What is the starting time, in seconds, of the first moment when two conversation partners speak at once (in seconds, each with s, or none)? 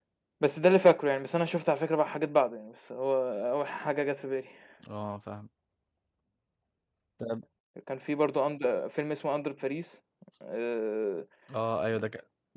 none